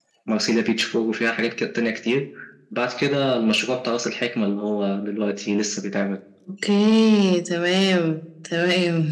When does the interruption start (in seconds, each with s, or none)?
none